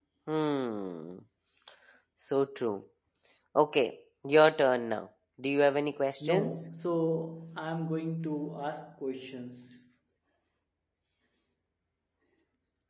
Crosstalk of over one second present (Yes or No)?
No